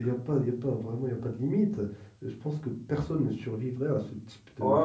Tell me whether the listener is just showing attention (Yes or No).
No